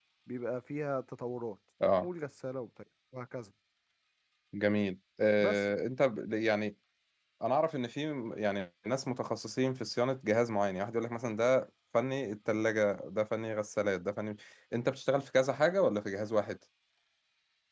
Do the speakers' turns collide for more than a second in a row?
No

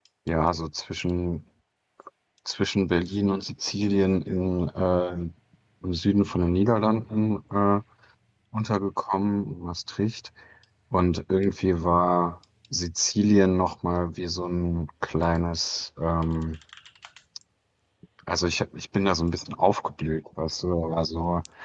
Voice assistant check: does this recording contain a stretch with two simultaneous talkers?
No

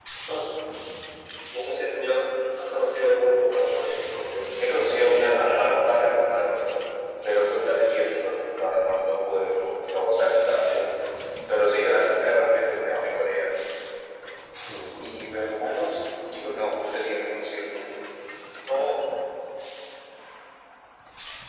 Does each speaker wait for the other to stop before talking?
No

